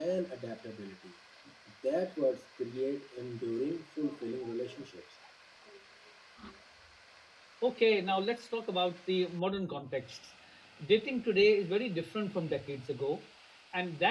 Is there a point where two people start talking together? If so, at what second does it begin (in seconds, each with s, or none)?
none